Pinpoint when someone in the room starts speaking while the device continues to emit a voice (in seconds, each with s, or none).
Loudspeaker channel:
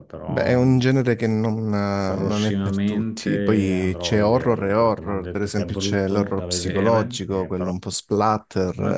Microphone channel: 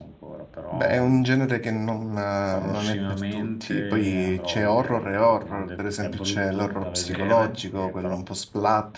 none